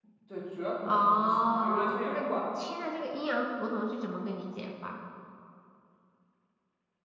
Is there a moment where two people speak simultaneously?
Yes, from 0.9 s

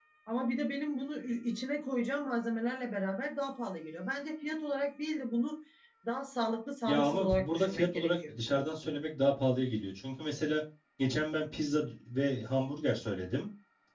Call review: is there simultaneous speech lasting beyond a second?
Yes, from 6.9 s

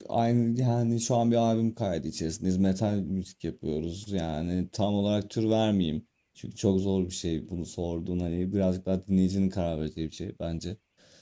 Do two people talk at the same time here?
No

